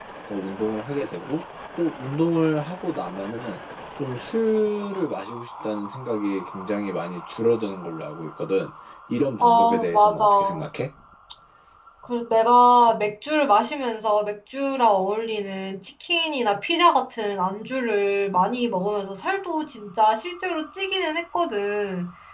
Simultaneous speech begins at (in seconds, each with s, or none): 9.4 s